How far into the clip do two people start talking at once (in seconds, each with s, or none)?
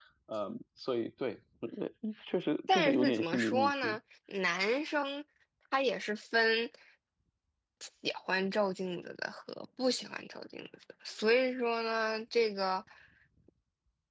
2.7 s